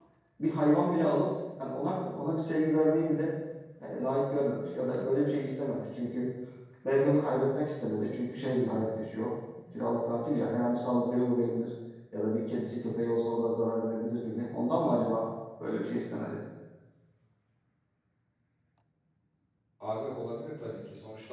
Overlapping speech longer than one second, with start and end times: none

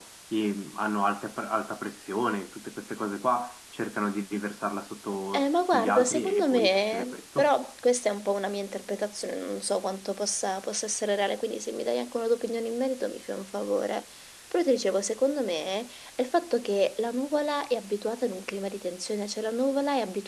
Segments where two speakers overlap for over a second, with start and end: 5.3-7.5

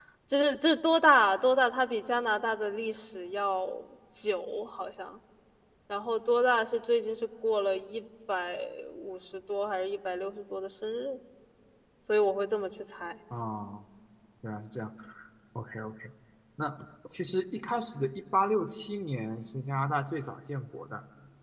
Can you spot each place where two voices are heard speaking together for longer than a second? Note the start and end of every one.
none

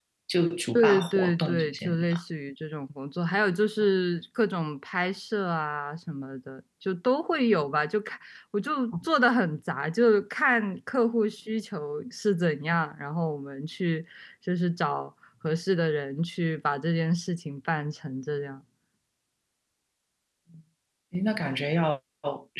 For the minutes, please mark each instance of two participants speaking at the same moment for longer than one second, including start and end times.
0.8-2.2

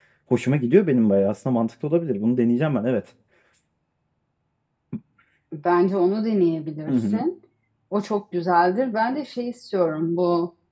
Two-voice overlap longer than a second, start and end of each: none

